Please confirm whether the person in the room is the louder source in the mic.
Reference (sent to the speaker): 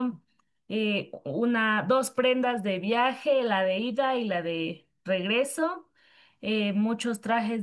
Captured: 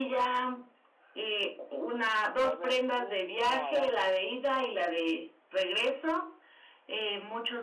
No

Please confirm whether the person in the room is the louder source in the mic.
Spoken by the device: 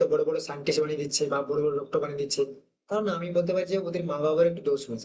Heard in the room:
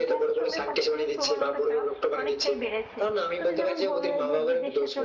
No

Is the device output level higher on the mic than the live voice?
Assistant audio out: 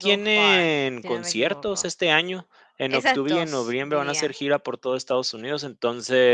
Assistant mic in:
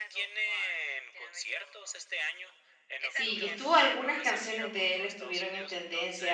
No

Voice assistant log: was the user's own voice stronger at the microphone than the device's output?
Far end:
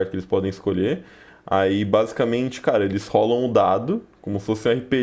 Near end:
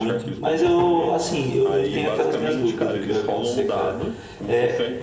Yes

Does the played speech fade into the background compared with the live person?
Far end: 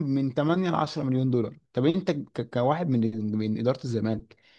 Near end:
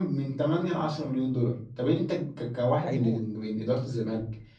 No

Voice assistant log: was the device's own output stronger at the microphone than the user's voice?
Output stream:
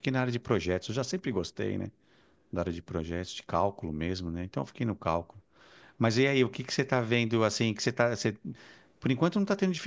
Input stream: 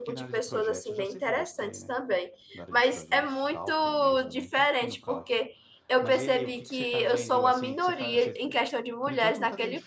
No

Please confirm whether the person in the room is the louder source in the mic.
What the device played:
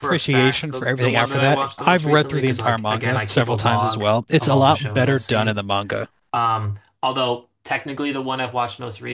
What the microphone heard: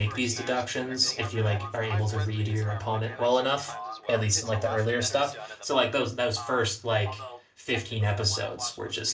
Yes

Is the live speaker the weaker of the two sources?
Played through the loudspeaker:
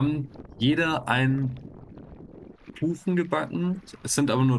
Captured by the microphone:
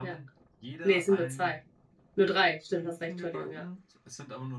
No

